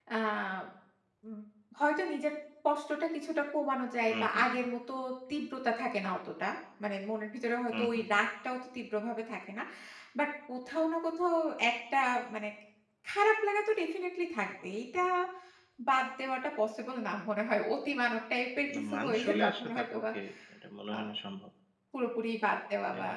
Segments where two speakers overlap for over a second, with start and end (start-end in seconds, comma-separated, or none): 18.8-20.0